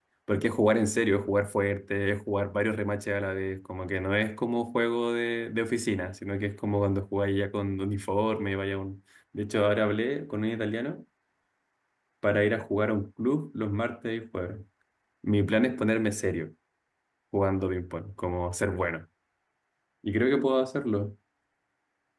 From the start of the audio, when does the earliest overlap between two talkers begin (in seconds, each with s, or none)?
none